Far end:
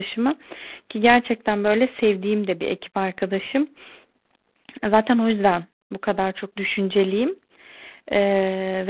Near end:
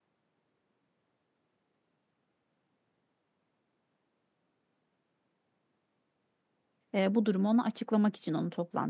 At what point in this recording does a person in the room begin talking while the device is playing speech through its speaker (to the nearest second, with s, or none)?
7 s